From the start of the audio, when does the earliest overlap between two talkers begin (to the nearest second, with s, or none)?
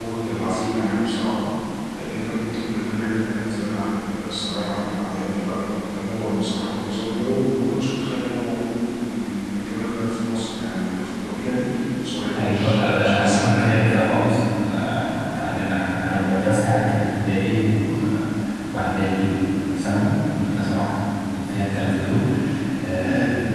12 s